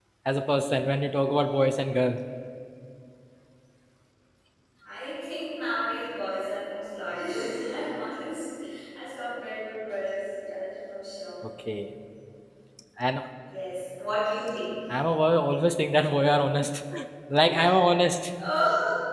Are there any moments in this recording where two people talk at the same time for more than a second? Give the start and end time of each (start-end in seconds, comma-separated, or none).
none